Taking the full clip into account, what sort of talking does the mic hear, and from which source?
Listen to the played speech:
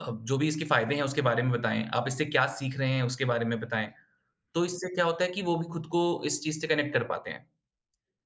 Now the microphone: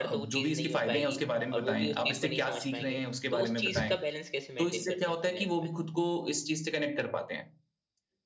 both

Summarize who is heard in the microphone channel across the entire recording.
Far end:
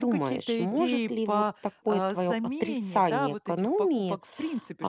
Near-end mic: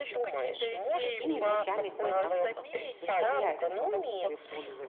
both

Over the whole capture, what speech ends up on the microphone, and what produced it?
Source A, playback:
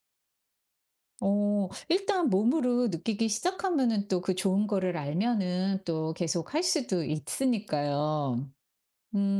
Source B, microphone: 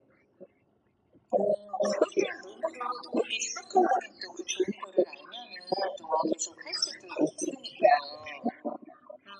echo only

